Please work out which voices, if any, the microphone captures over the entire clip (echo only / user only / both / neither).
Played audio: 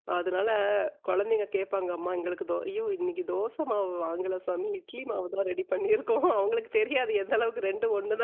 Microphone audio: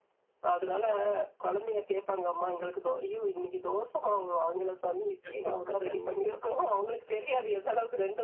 both